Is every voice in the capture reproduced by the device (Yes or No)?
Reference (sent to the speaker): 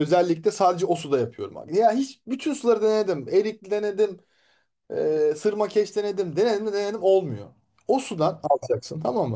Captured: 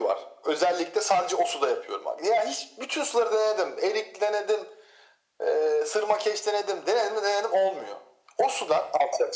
Yes